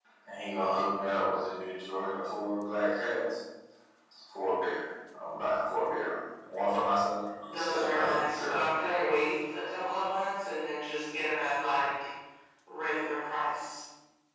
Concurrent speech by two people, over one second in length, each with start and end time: 7.4-9.1

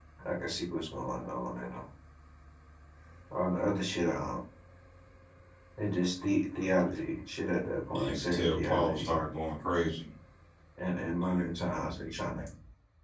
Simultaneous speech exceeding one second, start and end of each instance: 8.0-9.2

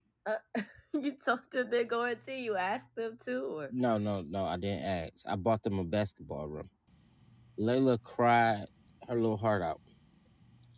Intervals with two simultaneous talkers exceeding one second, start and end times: none

